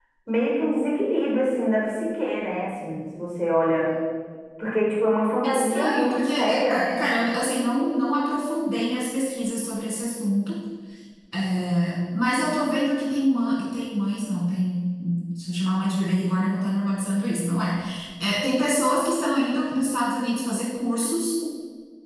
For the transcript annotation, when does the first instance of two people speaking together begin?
5.5 s

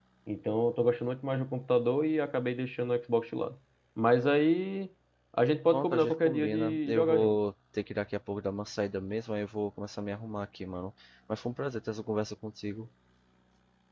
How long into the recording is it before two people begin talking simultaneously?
5.7 s

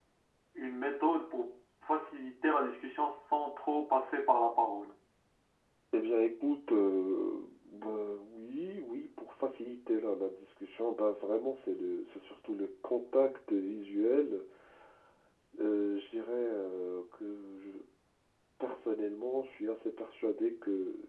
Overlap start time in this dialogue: none

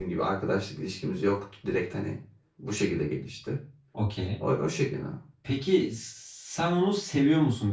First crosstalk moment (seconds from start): none

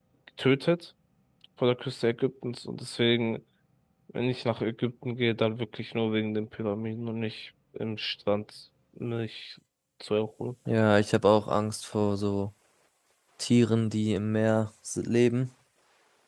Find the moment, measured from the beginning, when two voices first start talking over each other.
none

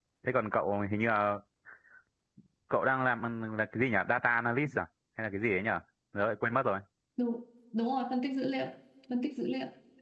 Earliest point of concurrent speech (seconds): none

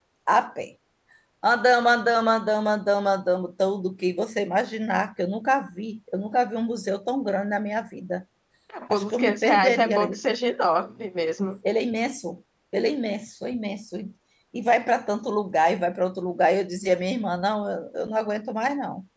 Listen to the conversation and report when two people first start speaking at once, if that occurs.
8.9 s

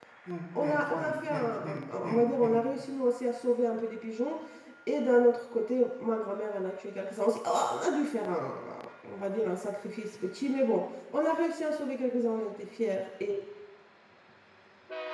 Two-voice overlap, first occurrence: 0.6 s

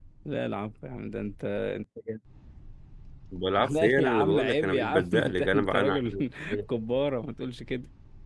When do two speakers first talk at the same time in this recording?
3.6 s

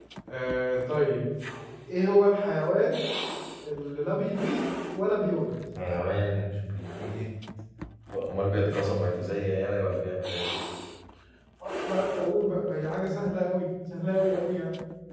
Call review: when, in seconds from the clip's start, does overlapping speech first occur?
none

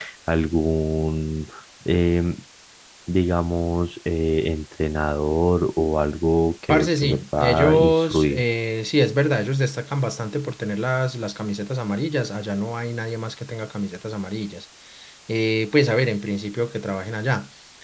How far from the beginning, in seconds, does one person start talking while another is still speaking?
6.7 s

